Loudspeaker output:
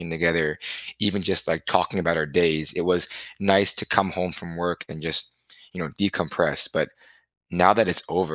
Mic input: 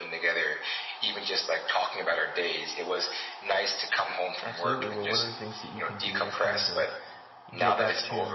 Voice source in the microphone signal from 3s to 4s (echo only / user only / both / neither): echo only